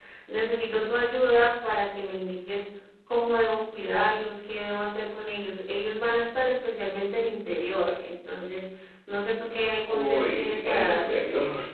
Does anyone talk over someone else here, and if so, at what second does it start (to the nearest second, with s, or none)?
10 s